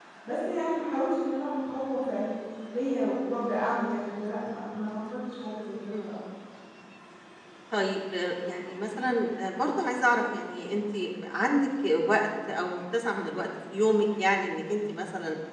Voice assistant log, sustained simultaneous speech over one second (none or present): none